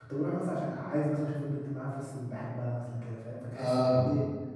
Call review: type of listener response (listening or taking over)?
listening